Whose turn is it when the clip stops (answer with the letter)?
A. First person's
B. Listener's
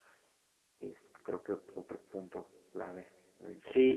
B